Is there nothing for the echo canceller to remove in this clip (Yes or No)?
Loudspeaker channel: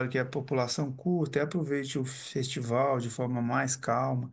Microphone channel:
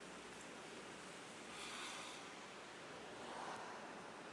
Yes